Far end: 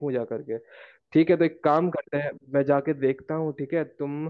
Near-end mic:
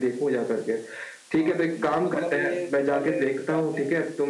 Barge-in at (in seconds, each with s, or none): 1.4 s